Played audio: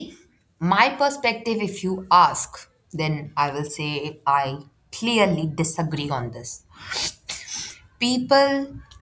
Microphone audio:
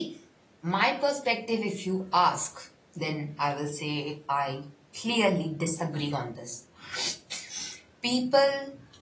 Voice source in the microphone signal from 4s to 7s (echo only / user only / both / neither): echo only